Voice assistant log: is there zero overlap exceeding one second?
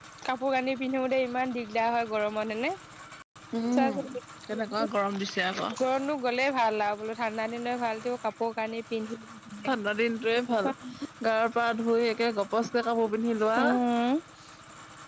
Yes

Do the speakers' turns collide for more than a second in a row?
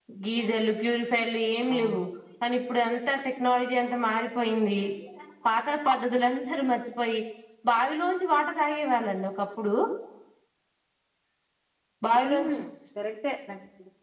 No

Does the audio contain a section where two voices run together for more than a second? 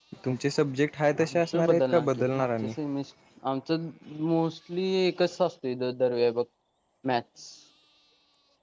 Yes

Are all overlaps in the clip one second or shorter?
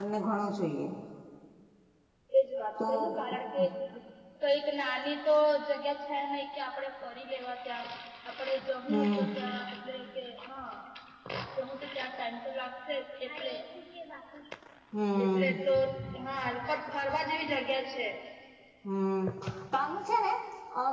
Yes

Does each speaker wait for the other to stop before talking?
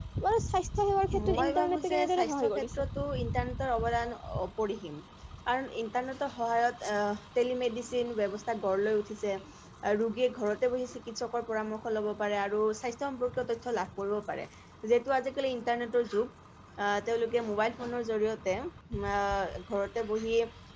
No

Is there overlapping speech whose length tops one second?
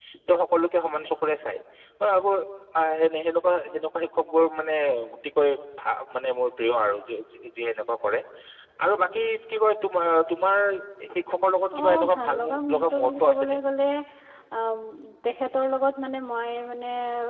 Yes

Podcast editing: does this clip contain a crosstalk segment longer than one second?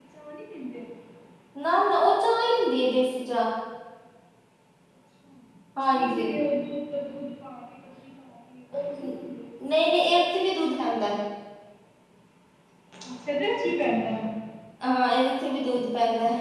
No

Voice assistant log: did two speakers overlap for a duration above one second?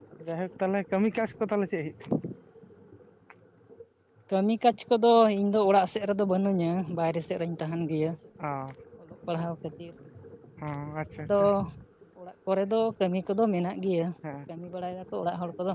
No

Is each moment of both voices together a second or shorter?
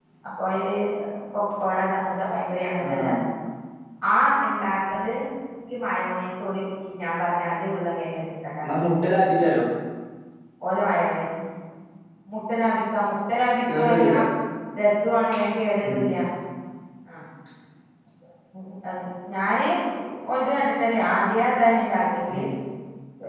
Yes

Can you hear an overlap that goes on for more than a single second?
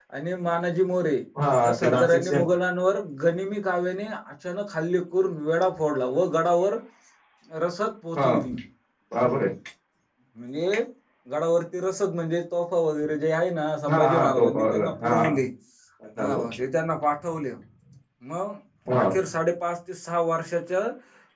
Yes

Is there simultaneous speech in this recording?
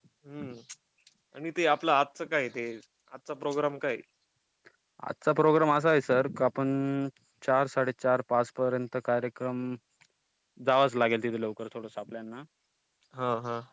No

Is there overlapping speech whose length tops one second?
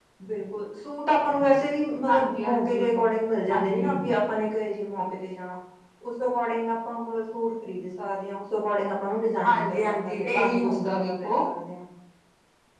Yes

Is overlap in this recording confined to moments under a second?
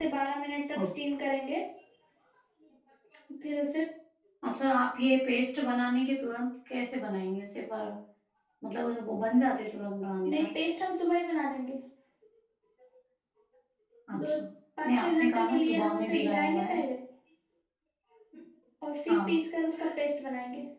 No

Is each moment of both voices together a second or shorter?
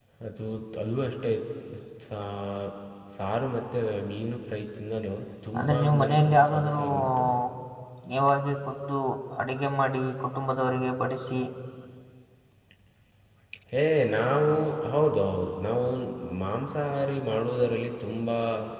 No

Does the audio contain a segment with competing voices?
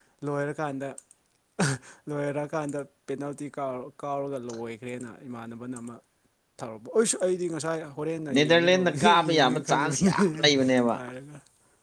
Yes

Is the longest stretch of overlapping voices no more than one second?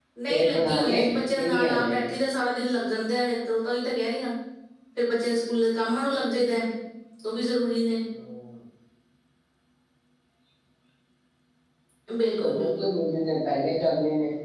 No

